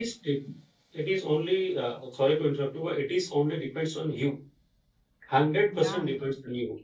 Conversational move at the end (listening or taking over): listening